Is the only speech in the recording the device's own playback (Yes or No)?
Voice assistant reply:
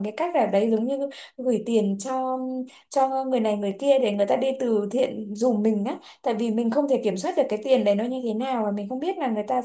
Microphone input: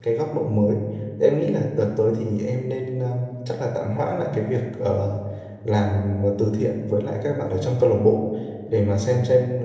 No